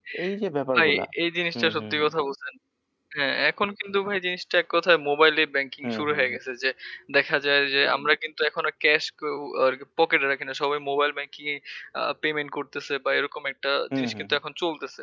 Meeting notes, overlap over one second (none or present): none